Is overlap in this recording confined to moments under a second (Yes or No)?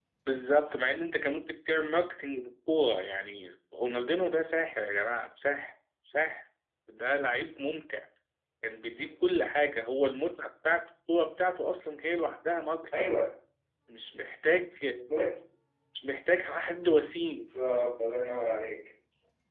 Yes